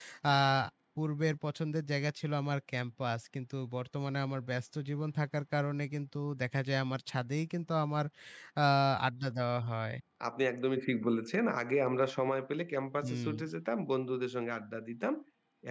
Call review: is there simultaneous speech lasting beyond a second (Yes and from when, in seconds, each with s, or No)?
No